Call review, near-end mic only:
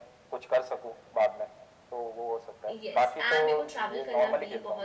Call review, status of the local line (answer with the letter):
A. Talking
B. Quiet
A